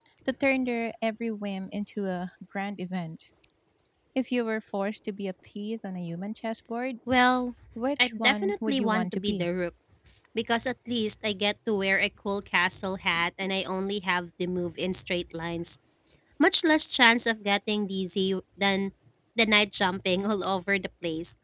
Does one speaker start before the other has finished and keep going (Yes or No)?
Yes